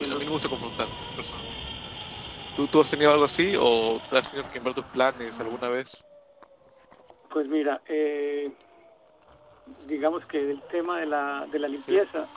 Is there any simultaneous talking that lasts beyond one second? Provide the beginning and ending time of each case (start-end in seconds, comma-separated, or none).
none